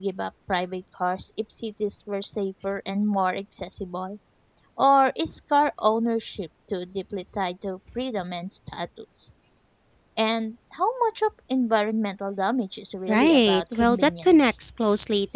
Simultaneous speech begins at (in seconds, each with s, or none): 13.1 s